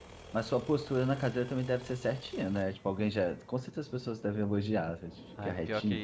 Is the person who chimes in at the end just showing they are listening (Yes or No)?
No